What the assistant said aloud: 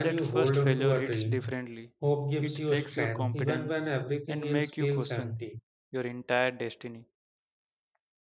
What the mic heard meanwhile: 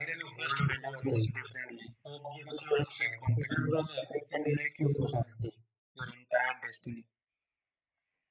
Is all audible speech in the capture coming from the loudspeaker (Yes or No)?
Yes